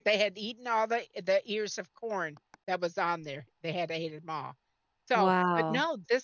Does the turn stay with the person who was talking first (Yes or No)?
Yes